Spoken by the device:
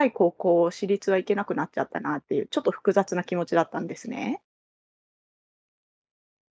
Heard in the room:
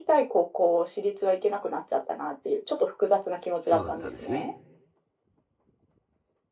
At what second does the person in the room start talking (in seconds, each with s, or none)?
3.6 s